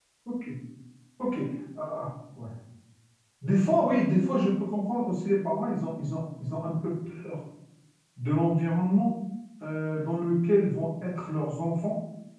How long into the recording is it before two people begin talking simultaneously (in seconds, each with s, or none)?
none